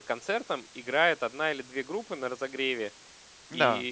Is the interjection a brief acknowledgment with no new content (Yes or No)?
Yes